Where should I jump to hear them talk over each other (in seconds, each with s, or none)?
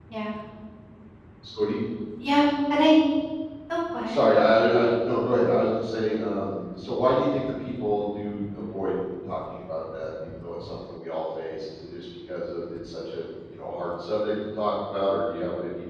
none